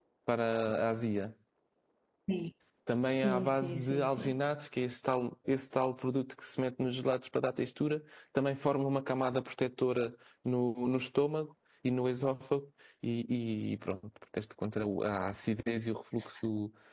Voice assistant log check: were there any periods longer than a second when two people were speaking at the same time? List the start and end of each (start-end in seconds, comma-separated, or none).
3.1-4.3